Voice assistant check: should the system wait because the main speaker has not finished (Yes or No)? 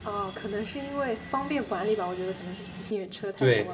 No